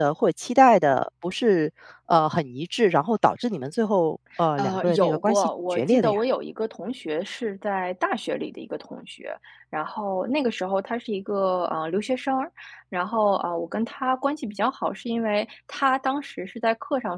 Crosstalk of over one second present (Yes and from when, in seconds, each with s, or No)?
Yes, from 4.6 s